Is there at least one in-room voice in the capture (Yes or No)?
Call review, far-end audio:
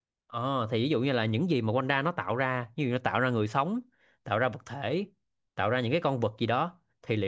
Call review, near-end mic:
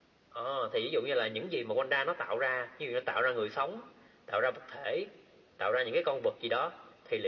No